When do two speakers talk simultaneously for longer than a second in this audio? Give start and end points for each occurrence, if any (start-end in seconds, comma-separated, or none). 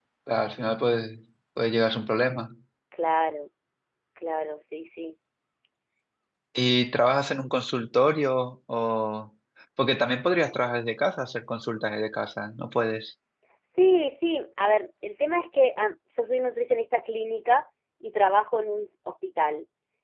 none